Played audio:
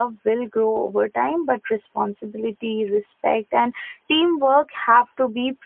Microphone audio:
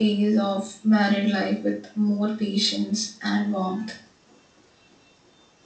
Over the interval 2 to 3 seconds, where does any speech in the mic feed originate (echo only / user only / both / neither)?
user only